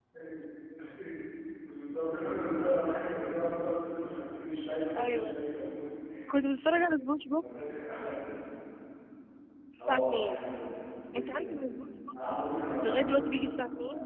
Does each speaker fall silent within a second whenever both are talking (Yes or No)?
Yes